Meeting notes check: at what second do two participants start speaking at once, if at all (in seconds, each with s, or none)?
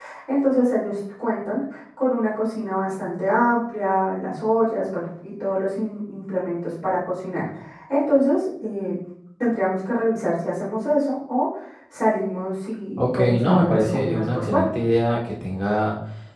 13.0 s